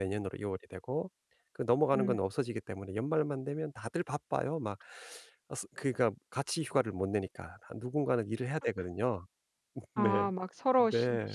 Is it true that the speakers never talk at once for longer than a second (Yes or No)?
Yes